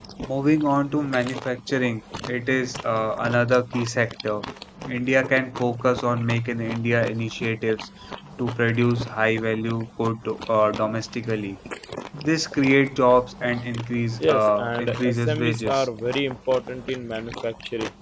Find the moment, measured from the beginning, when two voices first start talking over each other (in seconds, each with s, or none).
14.2 s